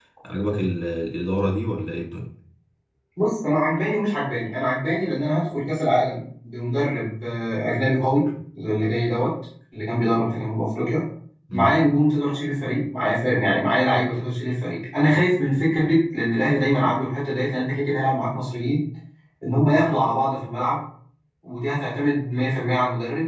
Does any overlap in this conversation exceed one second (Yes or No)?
No